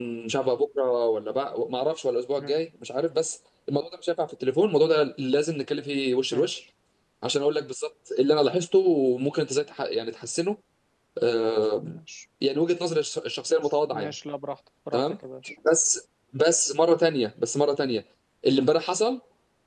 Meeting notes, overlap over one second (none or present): none